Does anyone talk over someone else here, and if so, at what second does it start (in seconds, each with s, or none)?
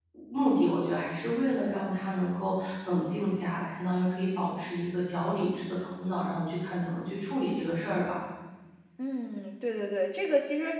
none